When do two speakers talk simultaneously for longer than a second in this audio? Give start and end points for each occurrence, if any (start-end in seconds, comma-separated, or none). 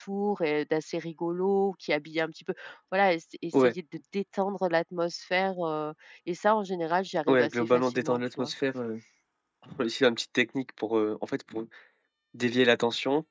7.3-8.5